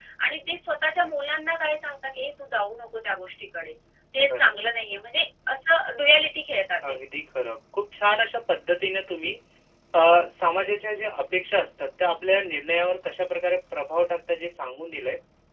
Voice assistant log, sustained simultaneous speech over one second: none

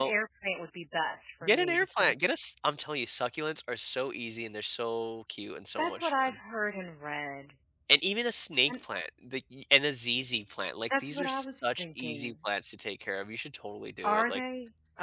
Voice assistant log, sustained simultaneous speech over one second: present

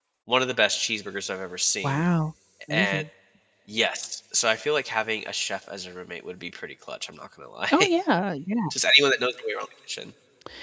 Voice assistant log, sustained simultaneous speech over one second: none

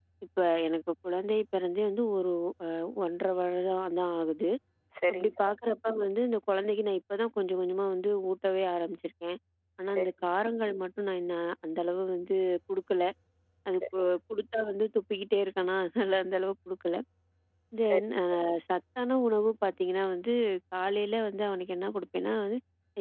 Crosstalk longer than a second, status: none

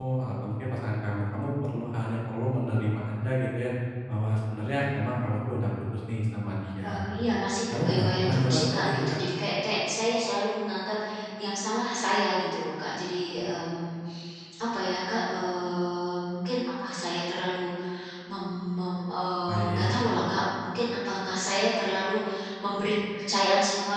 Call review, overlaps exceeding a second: present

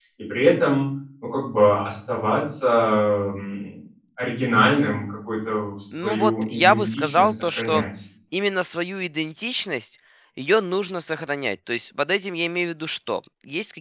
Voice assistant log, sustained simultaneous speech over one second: present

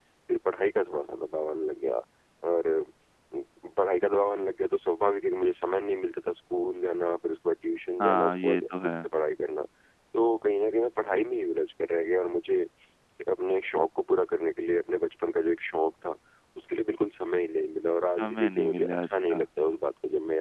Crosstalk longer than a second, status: present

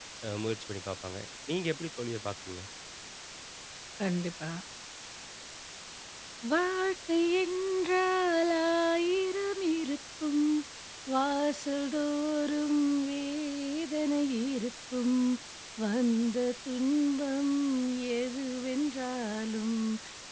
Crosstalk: none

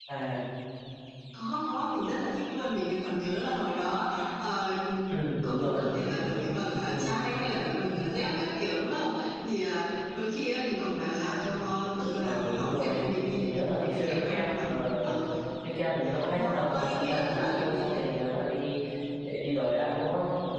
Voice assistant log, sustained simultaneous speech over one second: present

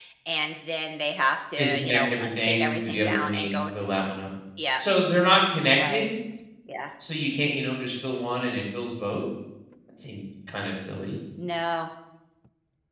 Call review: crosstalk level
present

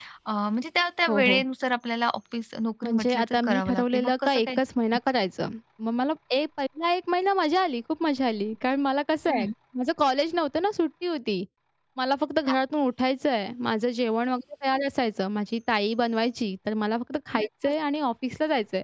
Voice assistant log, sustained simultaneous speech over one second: present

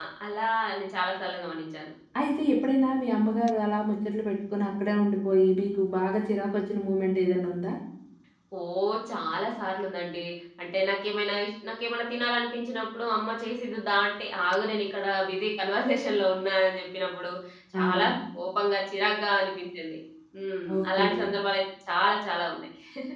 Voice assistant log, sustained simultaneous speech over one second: none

